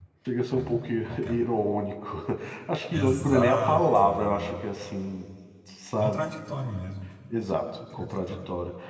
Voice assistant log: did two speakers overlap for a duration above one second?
Yes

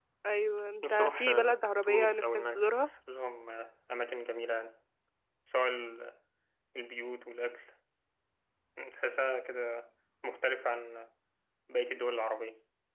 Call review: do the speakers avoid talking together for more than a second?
No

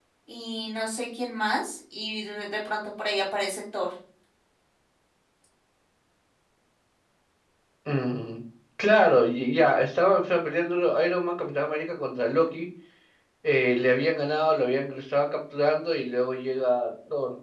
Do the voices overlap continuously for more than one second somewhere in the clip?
No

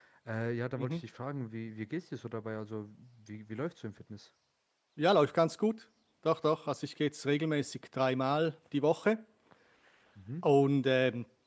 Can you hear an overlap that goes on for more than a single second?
No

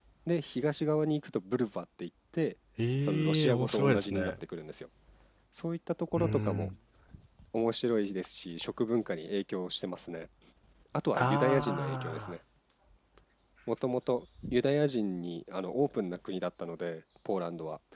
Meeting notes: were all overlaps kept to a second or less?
No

